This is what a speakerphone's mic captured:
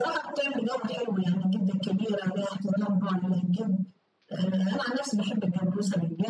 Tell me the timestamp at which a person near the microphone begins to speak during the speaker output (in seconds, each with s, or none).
none